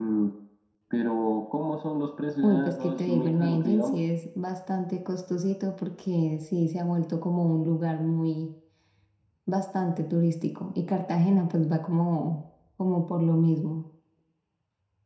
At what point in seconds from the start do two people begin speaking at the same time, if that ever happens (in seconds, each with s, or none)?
2.4 s